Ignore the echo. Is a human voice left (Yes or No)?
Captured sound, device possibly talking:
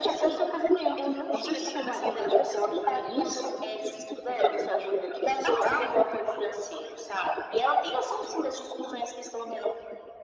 No